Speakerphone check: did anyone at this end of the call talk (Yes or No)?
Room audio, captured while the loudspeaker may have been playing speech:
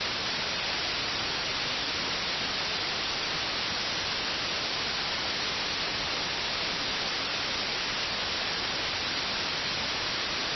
No